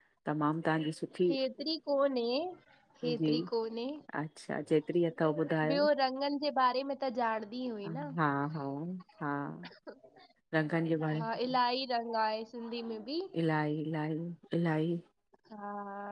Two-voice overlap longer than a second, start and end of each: none

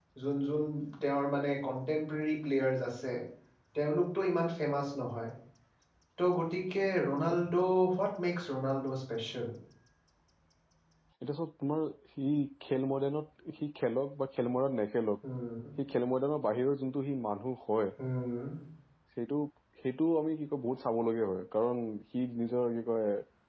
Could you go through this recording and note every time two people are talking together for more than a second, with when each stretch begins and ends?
none

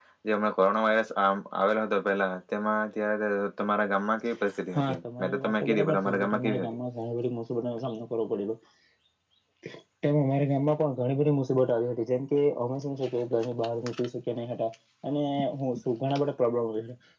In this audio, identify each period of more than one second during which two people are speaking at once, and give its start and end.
4.8-6.8

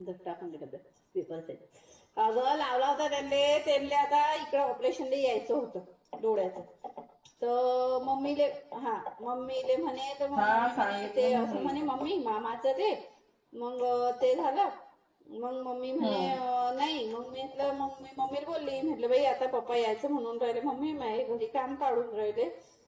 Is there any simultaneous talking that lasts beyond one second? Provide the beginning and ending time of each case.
10.4-11.7

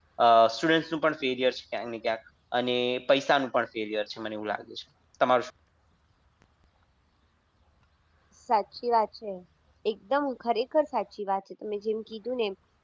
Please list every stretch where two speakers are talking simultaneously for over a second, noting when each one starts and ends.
none

